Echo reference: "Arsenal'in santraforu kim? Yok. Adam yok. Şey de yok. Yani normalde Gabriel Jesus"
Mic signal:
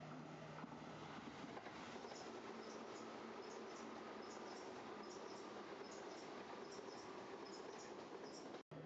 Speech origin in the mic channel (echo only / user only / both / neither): neither